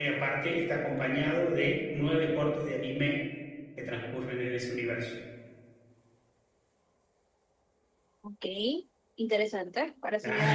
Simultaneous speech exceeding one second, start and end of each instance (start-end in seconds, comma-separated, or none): none